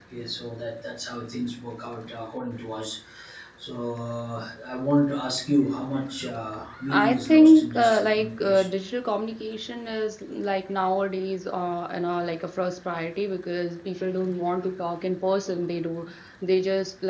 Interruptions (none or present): present